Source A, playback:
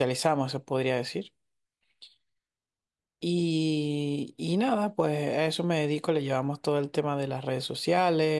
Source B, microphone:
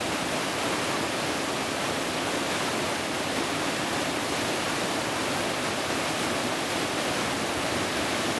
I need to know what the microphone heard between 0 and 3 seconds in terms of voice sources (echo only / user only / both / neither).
neither